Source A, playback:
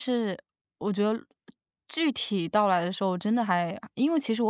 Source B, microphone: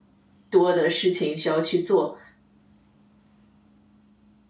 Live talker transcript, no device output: 多的事情需要去做。

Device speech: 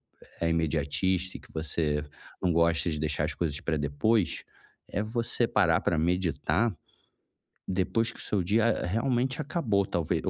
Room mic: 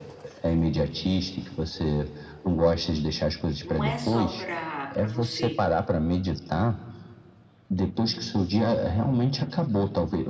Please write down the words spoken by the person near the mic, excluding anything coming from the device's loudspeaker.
não é só para para você

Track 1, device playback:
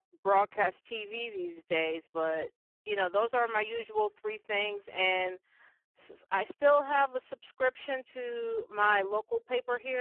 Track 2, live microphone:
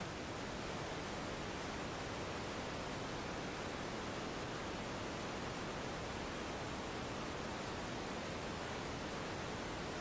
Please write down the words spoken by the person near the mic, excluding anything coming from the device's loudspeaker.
none

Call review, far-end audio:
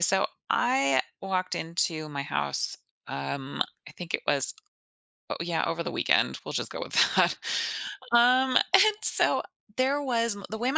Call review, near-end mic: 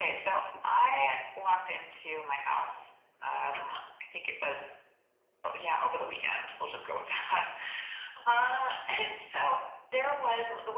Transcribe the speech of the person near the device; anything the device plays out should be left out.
none

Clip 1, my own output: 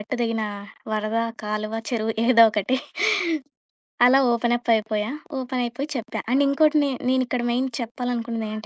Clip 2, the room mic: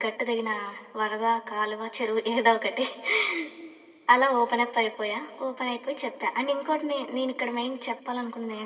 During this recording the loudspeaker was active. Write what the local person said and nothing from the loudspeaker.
none

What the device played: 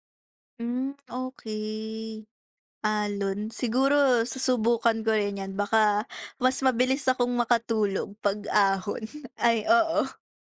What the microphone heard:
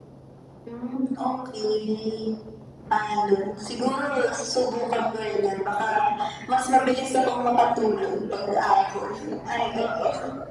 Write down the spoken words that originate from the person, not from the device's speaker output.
none

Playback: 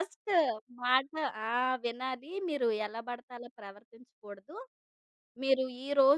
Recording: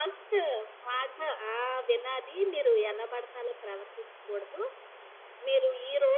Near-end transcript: none

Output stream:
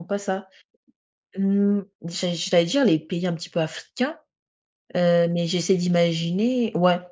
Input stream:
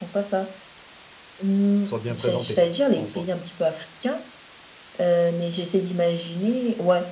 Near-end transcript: soient bien présentés, en soi.

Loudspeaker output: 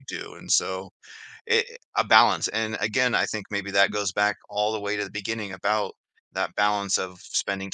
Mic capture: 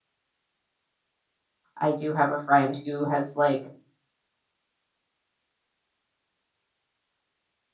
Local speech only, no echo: I do have a friend who has, like,

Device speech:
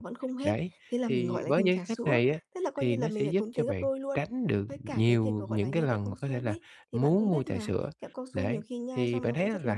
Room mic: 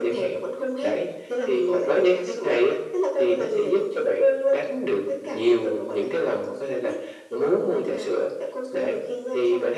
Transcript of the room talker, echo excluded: none

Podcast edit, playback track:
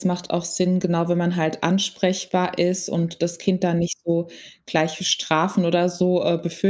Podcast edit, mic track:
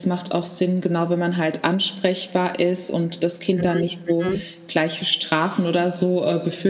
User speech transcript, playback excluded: Mhm, mhm.

